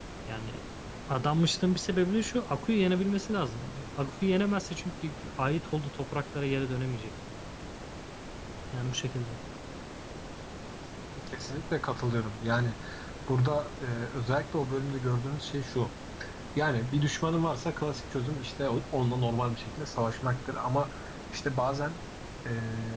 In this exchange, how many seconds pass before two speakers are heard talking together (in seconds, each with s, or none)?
none